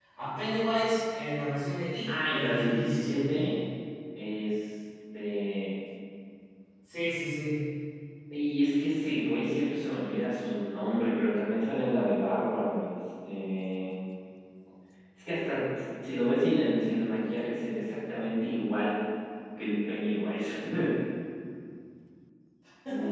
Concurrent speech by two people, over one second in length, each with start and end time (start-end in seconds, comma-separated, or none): 2.1-3.4